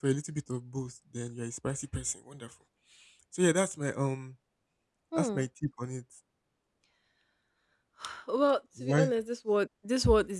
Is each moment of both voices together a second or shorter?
Yes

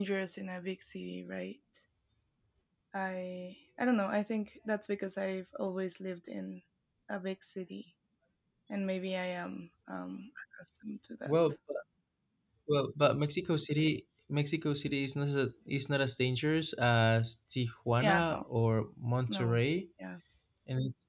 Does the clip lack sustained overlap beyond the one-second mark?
Yes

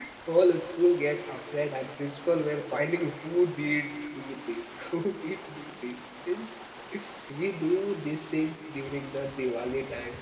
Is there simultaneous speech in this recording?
No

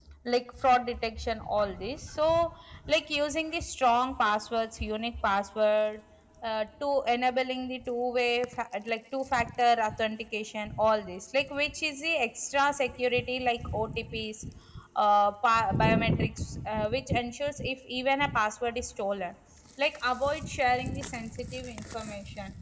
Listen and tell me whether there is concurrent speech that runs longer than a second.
No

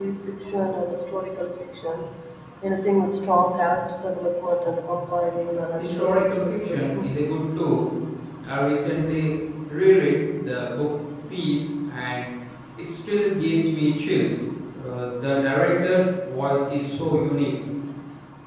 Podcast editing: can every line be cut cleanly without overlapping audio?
No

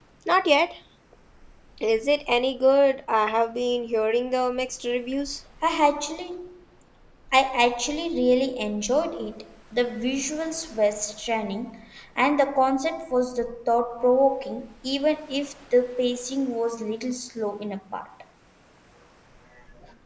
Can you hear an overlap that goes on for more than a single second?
No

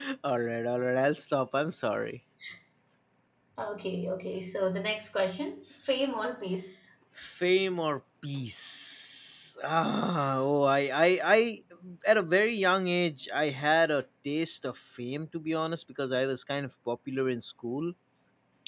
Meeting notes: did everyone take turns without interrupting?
Yes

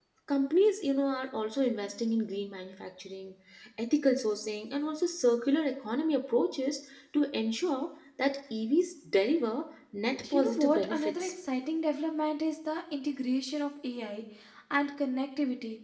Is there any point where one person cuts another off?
Yes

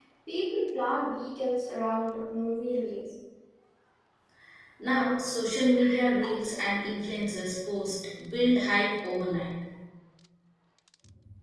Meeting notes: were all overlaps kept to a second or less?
Yes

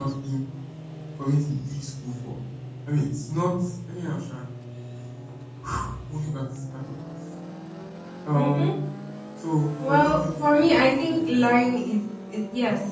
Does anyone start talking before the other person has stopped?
Yes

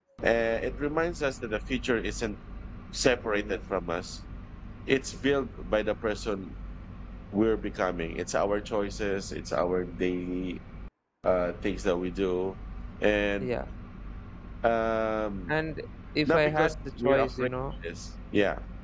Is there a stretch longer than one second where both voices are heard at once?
Yes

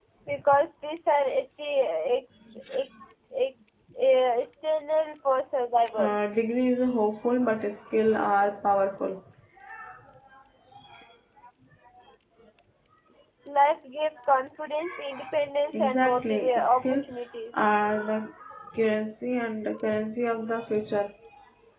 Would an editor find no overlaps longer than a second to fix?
No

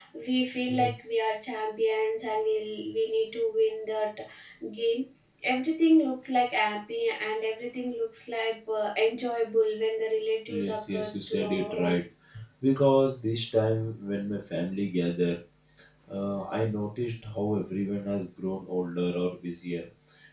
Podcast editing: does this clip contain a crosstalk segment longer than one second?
Yes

